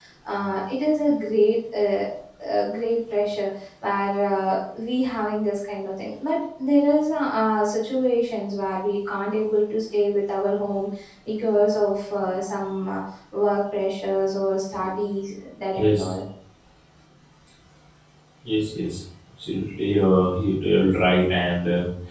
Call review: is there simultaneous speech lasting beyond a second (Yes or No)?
No